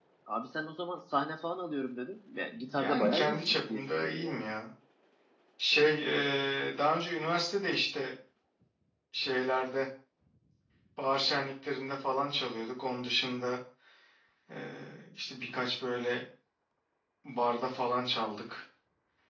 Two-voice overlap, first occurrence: 2.5 s

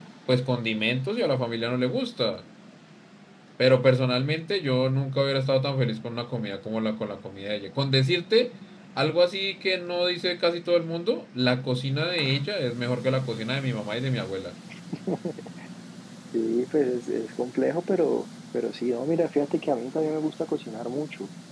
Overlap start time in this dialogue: none

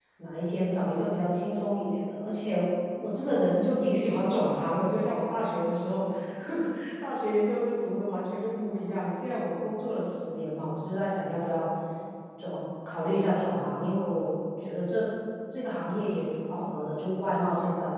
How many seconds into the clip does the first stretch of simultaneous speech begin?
none

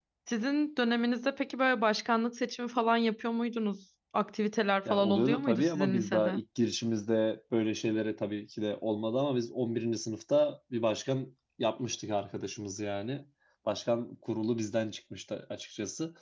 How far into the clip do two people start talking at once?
4.8 s

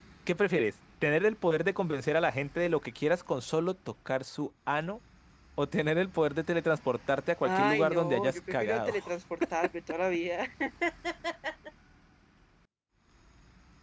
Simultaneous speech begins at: 7.4 s

